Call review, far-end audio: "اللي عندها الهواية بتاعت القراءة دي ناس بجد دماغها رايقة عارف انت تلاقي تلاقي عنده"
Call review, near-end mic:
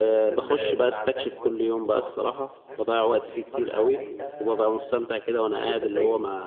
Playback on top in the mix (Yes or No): No